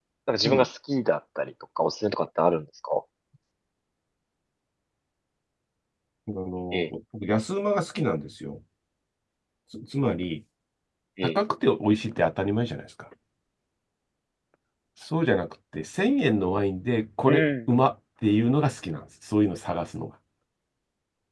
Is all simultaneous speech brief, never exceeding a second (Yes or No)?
Yes